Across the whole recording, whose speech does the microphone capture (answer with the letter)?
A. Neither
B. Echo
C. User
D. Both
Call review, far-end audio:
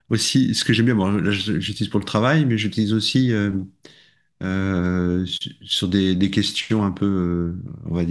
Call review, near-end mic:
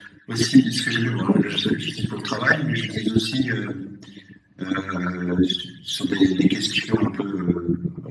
B